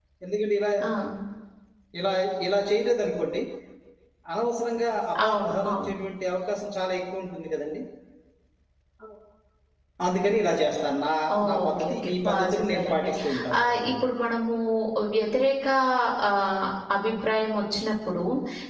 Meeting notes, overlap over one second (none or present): present